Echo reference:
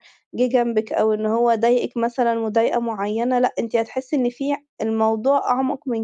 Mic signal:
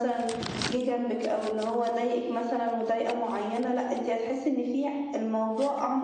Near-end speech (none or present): none